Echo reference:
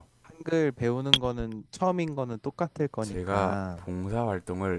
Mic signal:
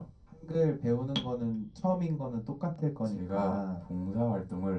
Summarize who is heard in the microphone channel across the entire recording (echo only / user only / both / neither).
echo only